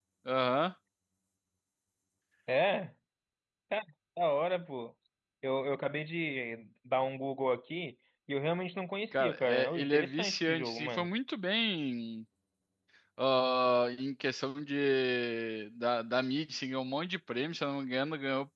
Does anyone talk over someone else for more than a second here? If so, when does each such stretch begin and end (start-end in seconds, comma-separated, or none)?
9.1-11.1